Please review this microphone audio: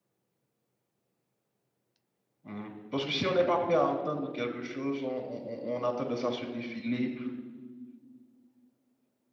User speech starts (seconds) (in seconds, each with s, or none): 2.4 s